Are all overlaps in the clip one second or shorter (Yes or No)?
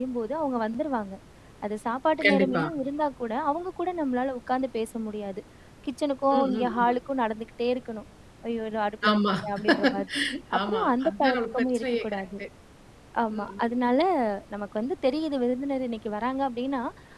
No